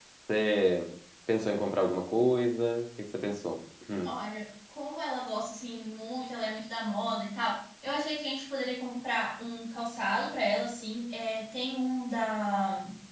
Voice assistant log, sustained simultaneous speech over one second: none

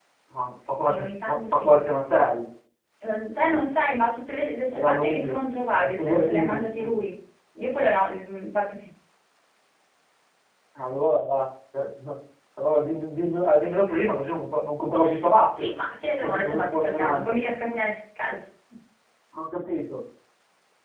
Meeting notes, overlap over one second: present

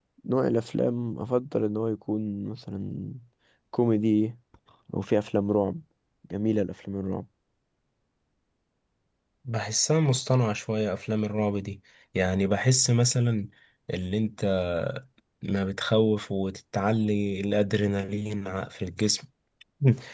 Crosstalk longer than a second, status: none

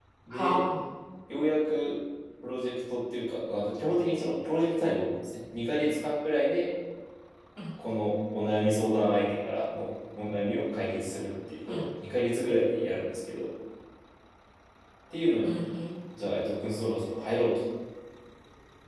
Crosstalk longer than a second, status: none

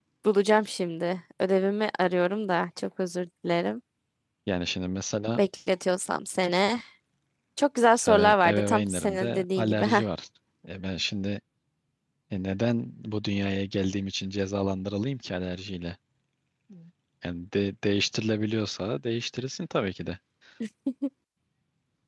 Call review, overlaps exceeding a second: present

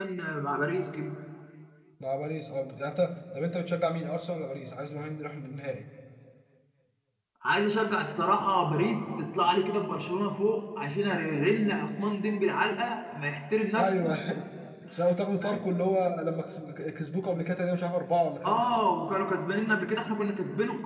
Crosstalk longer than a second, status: none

